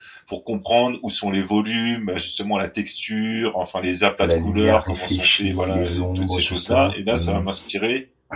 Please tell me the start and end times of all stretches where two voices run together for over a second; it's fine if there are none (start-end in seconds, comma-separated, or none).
4.2-7.5